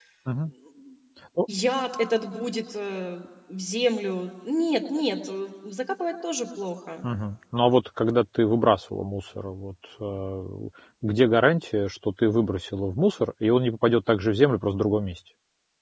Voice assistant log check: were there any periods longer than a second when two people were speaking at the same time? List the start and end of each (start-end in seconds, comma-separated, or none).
none